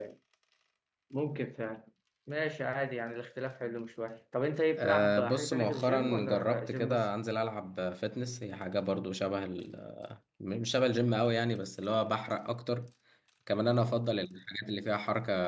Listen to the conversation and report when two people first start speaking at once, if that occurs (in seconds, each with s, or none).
4.8 s